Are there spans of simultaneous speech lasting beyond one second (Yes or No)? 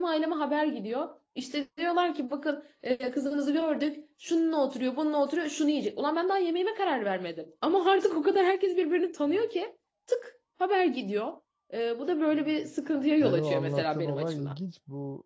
Yes